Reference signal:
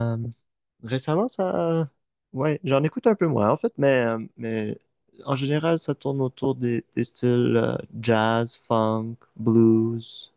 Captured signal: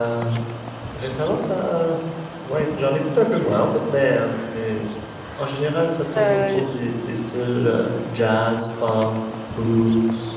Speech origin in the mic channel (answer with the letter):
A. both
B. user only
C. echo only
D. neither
A